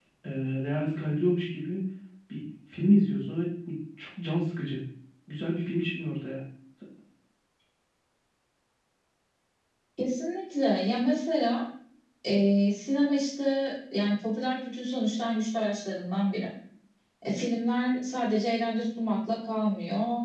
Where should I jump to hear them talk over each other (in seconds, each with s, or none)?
none